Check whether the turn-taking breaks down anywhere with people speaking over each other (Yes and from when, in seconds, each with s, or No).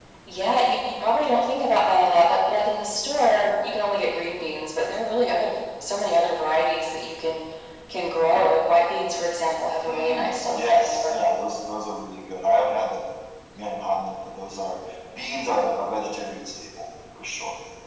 Yes, from 9.8 s